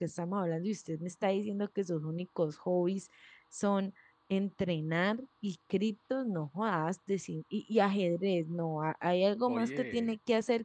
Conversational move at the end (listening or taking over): listening